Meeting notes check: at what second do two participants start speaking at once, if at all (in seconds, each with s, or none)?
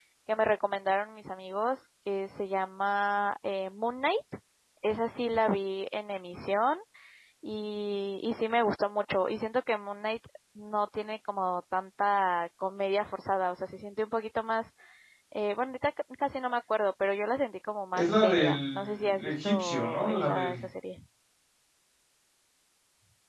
17.9 s